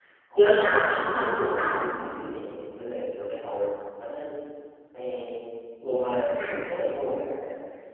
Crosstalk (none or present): present